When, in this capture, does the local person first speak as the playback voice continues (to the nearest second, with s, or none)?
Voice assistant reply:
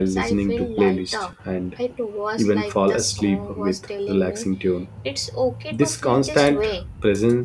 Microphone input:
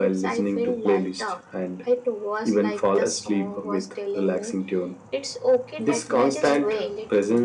6 s